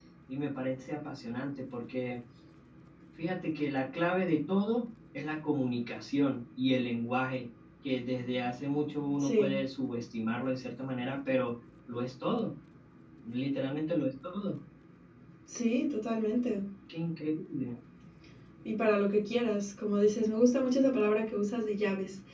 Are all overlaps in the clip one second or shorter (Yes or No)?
Yes